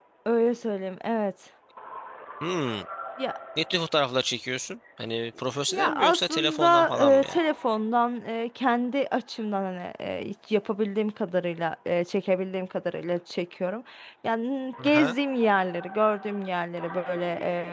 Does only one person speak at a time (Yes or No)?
No